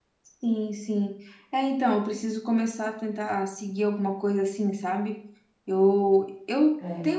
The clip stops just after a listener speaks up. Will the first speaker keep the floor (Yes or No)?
Yes